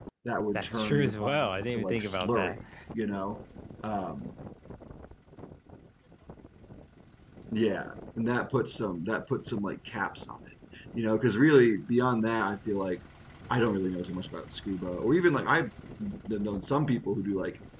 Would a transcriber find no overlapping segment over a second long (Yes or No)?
No